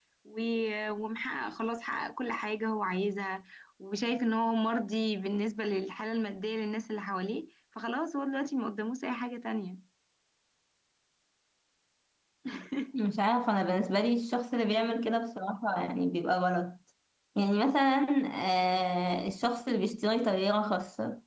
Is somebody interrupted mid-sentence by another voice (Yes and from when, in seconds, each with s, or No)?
No